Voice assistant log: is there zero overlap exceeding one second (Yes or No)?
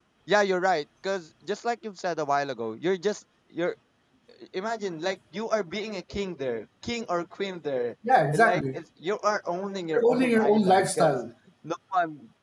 No